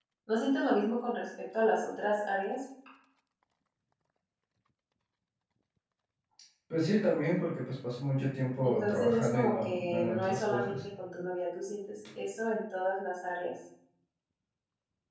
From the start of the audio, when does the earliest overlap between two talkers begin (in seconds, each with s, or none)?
8.6 s